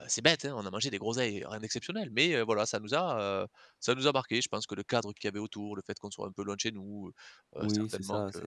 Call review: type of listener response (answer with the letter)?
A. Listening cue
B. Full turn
B